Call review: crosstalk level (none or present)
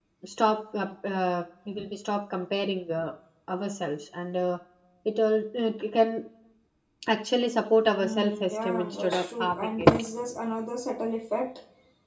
present